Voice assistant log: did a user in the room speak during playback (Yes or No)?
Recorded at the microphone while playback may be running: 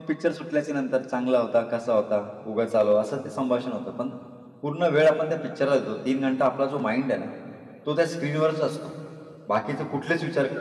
No